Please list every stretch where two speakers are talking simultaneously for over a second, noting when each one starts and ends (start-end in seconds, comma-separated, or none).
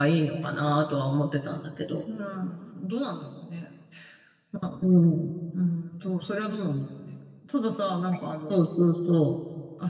none